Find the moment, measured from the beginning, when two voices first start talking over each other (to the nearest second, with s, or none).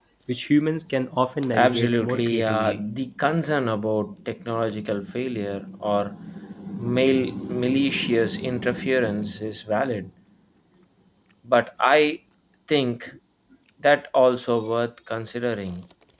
2 s